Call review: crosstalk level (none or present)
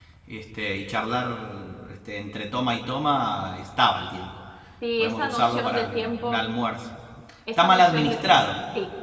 present